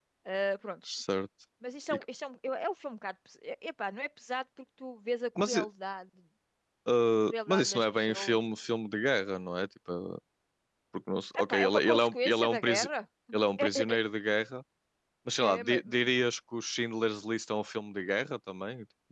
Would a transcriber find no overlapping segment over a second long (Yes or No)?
No